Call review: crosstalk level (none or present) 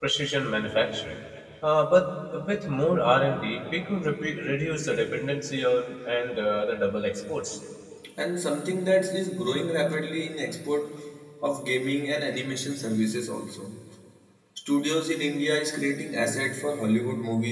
none